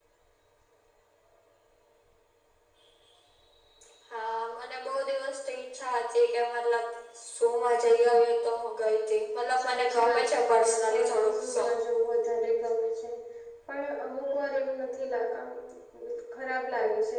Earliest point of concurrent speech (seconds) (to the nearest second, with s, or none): 10 s